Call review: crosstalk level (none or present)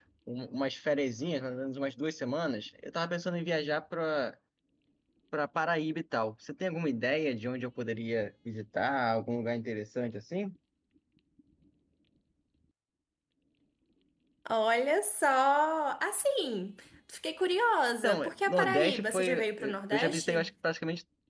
present